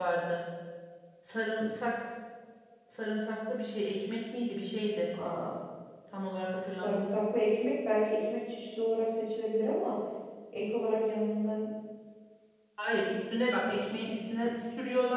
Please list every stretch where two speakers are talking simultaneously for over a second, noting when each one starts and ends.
none

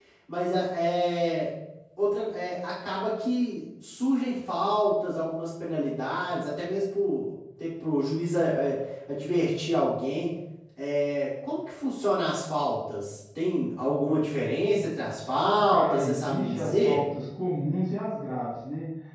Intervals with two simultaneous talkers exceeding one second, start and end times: 15.7-17.0

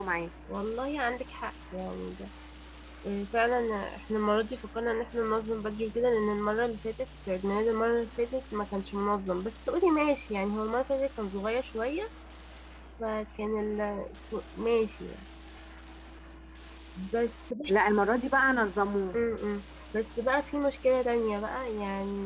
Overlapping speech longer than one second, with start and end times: none

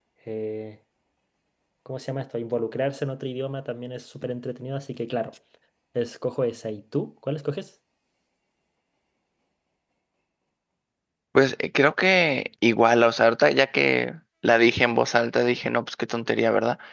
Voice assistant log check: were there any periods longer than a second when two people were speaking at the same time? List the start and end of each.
none

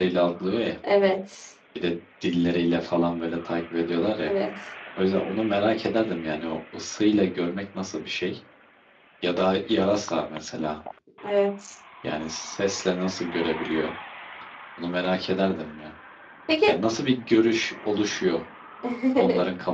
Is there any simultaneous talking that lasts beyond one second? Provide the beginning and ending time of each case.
none

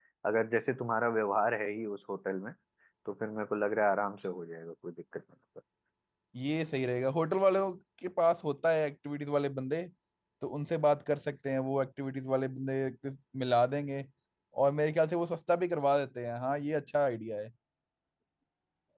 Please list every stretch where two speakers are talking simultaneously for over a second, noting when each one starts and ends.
none

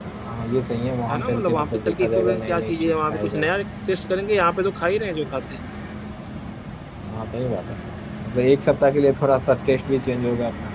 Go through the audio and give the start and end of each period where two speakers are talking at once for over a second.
1.1-3.5

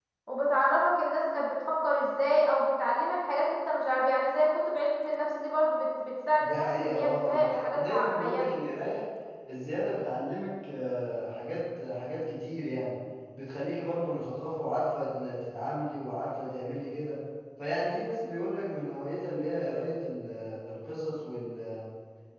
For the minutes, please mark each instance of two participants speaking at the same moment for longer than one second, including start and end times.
6.4-8.5

